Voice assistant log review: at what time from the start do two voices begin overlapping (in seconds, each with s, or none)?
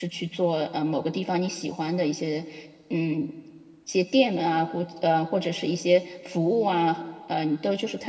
none